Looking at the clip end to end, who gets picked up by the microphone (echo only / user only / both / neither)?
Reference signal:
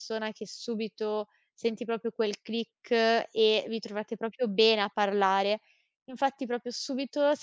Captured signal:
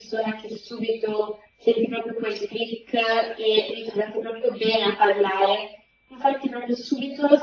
echo only